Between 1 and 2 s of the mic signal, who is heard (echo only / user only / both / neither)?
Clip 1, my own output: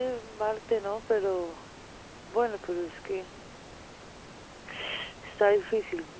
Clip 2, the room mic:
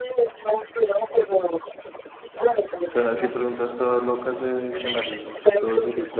echo only